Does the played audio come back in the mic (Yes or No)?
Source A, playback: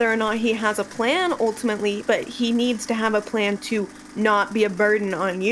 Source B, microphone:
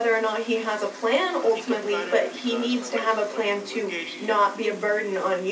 Yes